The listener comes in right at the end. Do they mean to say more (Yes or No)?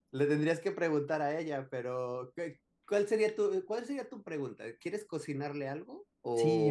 Yes